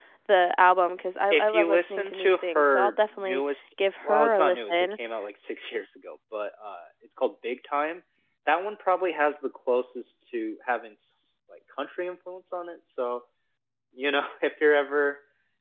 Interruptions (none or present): present